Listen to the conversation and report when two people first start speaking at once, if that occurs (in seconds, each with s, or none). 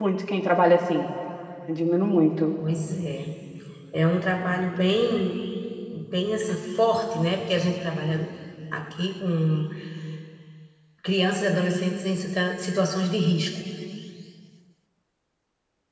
none